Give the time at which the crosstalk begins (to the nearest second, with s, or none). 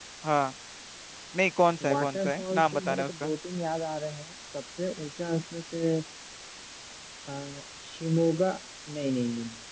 2 s